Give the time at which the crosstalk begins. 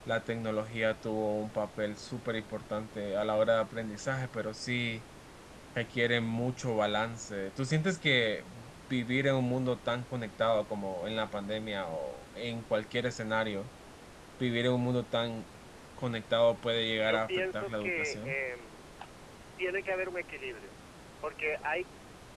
17.0 s

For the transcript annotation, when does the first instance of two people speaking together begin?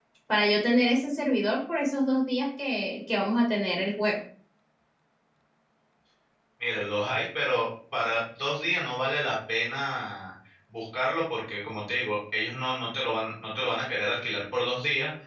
none

